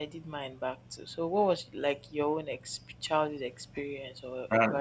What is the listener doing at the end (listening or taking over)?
taking over